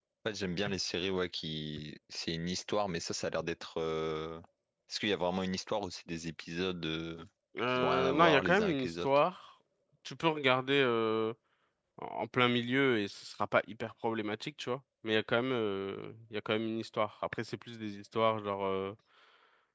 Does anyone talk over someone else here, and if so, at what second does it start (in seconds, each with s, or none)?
7.7 s